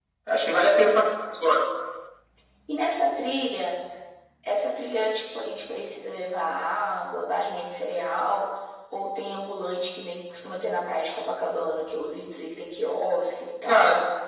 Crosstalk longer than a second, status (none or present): none